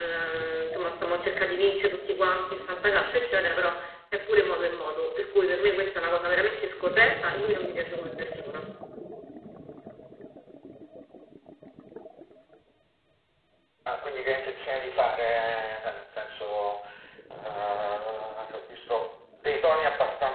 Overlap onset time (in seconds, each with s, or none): none